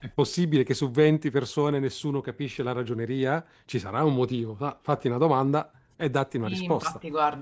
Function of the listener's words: taking over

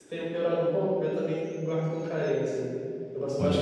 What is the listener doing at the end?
taking over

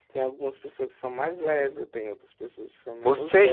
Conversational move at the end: taking over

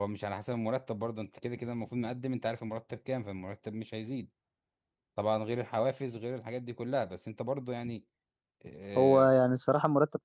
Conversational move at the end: taking over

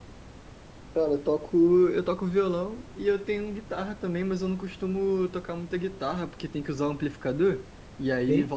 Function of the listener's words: listening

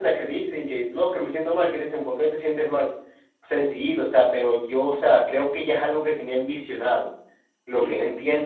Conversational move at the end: listening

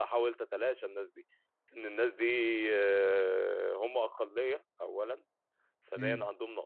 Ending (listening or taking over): listening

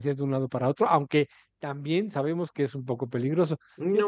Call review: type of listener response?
listening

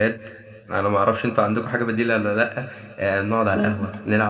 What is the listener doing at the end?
listening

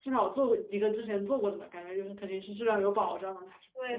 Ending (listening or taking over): taking over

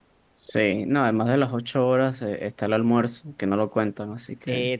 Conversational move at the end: taking over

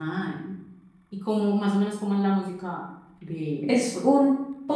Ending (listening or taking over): taking over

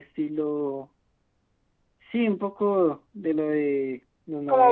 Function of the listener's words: listening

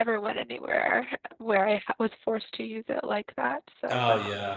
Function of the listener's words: taking over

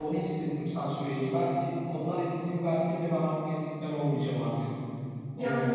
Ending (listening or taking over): taking over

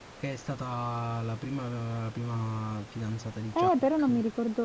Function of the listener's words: taking over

